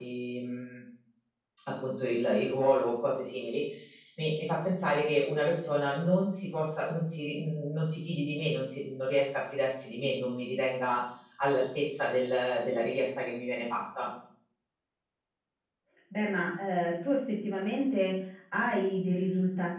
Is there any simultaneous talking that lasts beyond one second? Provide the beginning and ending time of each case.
none

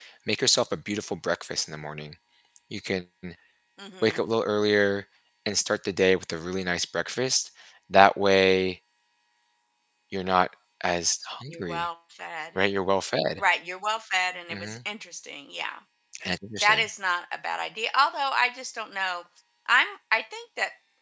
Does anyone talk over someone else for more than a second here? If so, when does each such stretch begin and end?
none

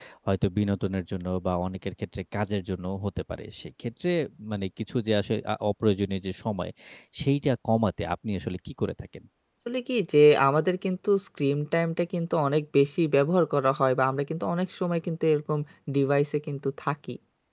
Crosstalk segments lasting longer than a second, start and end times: none

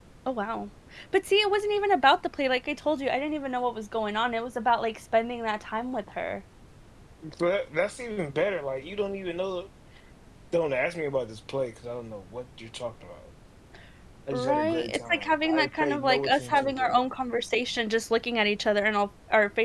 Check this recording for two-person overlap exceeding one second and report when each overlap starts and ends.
14.3-17.0

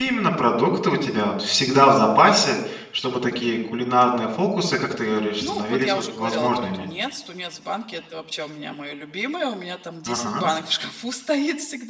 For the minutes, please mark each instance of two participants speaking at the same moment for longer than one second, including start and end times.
5.4-6.8

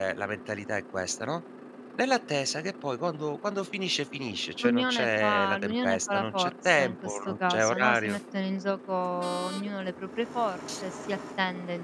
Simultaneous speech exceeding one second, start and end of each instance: 4.6-8.2

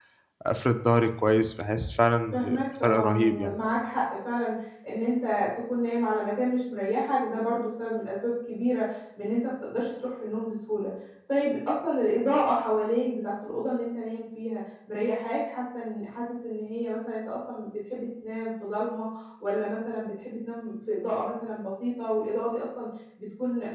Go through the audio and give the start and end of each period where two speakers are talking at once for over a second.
2.3-3.5

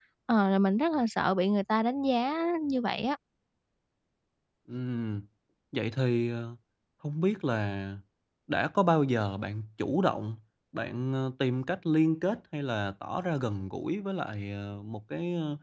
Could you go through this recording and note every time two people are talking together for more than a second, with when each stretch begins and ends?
none

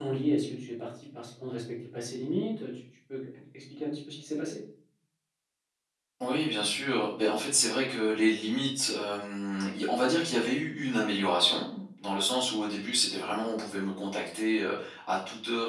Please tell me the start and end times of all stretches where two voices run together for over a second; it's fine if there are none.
none

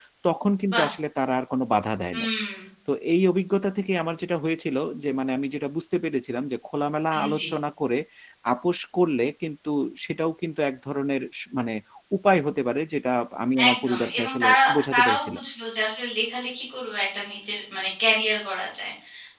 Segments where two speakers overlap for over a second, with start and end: 13.7-15.4

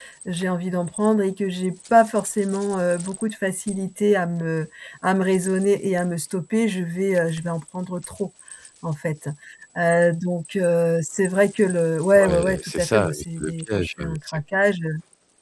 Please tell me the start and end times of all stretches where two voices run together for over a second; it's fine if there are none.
12.2-14.4

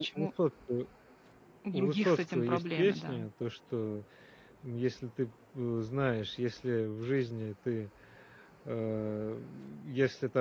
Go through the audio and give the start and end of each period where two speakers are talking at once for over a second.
1.7-3.2

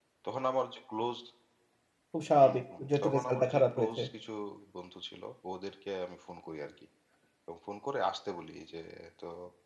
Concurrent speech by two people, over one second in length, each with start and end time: 2.4-4.0

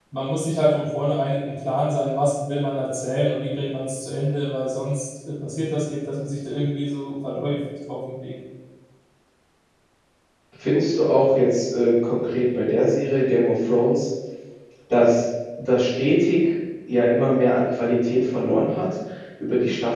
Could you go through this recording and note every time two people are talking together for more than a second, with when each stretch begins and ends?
none

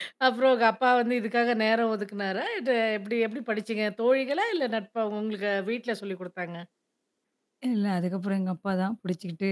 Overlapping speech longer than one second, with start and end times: none

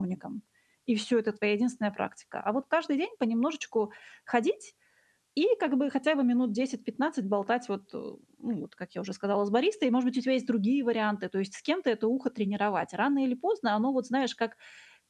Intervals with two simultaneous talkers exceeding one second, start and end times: none

